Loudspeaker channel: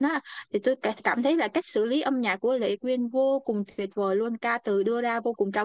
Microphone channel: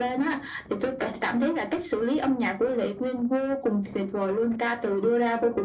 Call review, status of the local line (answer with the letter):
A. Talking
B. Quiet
B